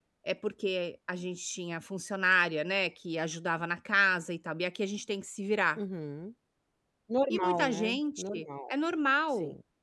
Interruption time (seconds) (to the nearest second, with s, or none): 7 s